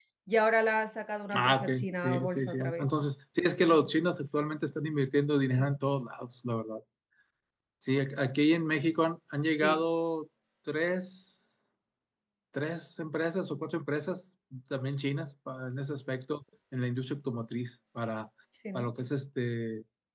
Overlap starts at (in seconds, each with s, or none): 1.3 s